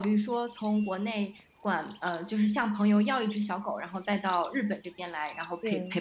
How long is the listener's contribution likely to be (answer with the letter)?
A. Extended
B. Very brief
B